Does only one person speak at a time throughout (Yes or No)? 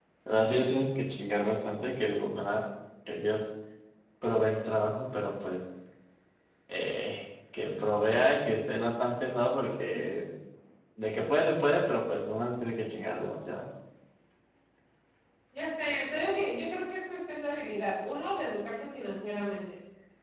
Yes